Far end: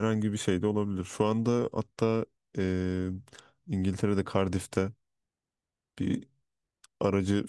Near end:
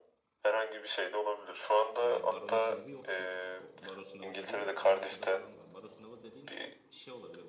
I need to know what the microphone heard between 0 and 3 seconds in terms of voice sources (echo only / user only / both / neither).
both